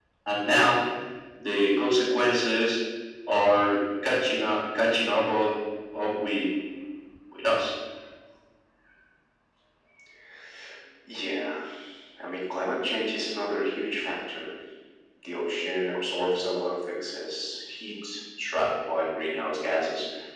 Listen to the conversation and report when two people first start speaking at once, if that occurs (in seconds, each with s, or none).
none